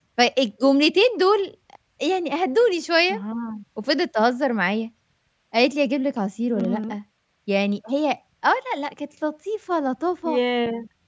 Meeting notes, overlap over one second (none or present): none